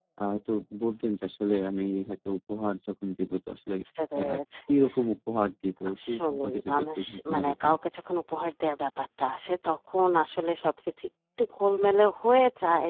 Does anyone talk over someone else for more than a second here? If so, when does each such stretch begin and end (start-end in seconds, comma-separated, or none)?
6.0-7.7